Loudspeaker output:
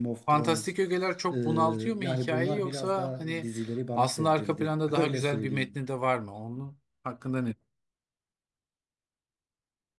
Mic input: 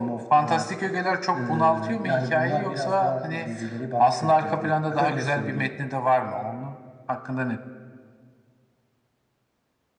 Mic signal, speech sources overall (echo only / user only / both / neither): echo only